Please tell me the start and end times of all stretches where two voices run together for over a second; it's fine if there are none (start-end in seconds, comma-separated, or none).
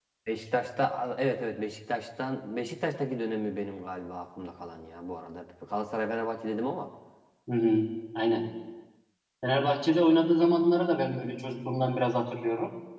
none